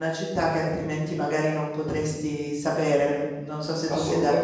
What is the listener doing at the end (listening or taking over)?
taking over